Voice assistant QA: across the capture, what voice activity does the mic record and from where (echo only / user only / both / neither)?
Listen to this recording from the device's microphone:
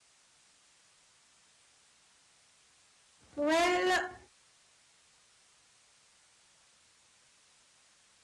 user only